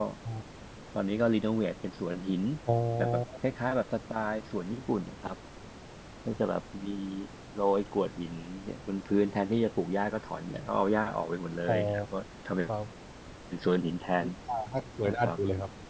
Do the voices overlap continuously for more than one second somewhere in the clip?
No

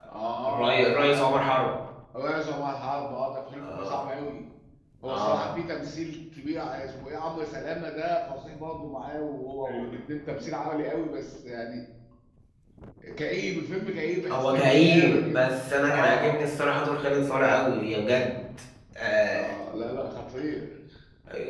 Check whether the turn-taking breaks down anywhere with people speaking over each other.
Yes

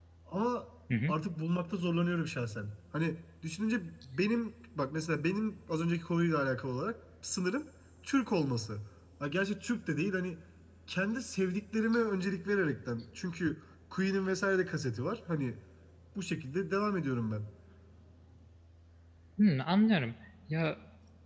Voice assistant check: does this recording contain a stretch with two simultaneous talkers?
No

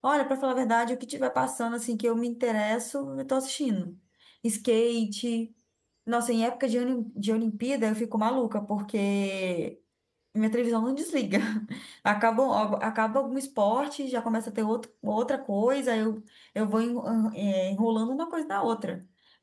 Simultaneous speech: No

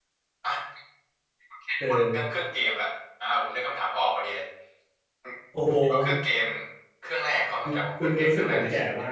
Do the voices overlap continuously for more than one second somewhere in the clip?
Yes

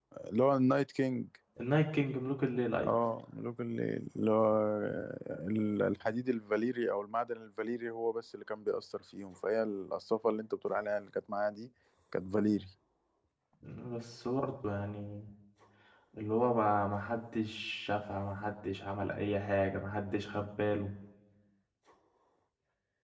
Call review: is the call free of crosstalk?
Yes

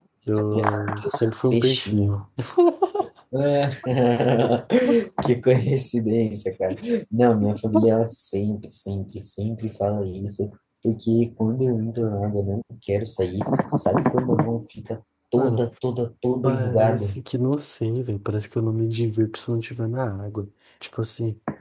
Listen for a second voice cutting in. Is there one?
Yes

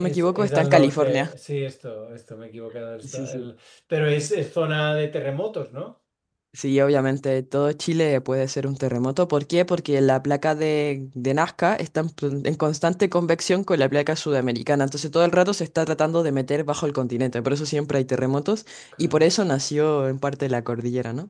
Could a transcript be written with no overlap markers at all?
No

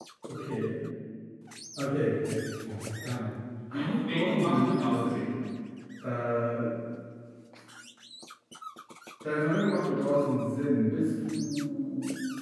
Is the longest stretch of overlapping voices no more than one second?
No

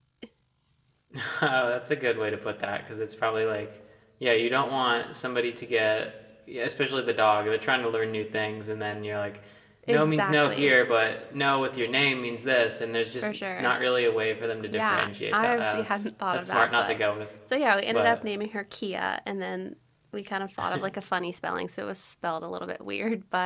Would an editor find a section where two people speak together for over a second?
Yes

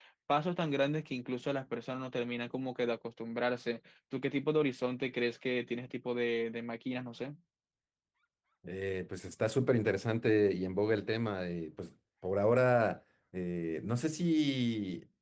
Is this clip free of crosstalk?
Yes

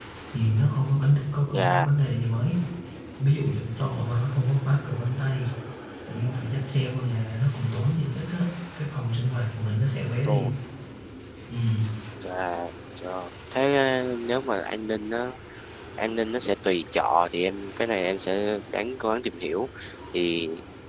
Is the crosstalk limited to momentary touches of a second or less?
Yes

